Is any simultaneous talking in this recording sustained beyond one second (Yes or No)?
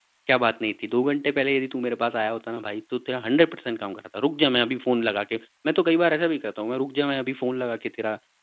No